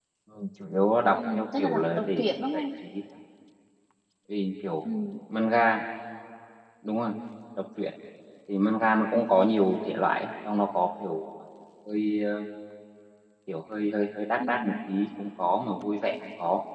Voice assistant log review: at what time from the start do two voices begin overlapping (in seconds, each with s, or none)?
1.1 s